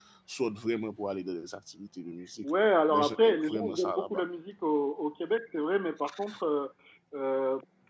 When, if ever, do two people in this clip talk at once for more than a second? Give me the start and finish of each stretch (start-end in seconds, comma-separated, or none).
2.9-4.2